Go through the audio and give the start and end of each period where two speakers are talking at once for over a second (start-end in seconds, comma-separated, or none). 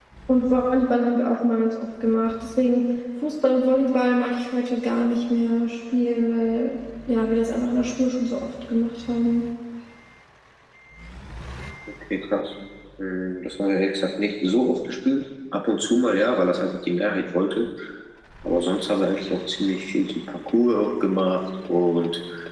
none